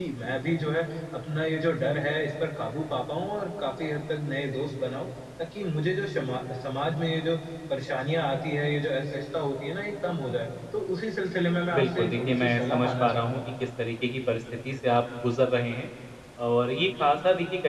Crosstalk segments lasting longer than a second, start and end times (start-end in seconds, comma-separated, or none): 11.7-13.4